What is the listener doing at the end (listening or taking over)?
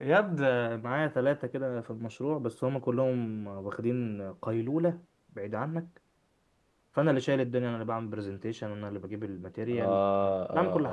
taking over